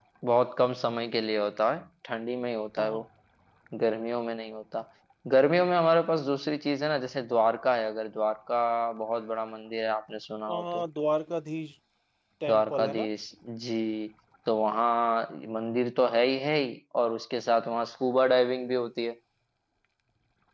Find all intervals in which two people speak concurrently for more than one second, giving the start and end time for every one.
none

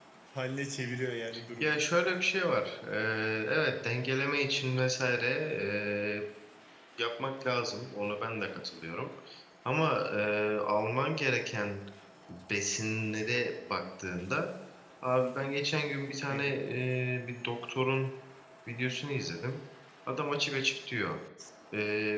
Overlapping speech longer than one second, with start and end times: none

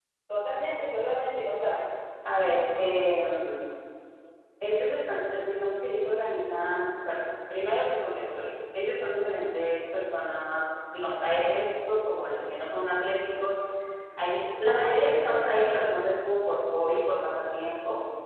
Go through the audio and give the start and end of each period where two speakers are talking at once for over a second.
none

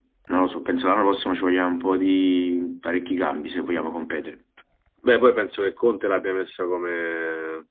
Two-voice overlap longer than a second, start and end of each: none

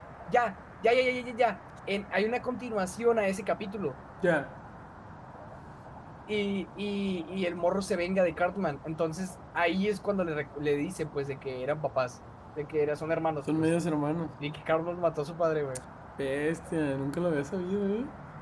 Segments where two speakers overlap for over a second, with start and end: none

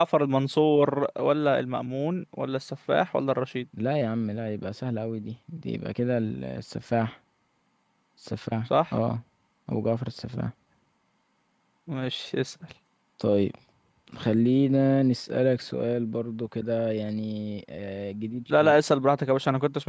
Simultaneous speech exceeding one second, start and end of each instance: none

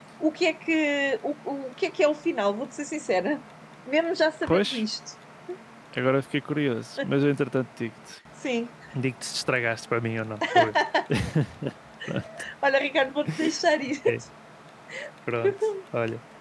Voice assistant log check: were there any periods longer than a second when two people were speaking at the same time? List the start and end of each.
none

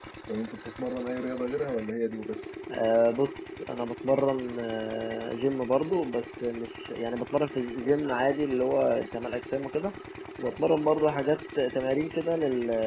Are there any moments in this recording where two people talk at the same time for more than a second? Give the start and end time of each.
none

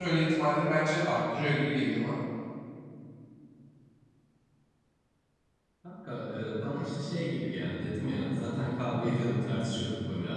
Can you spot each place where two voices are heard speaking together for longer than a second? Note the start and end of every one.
none

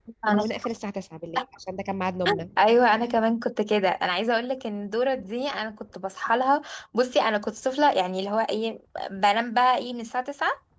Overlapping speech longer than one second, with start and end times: none

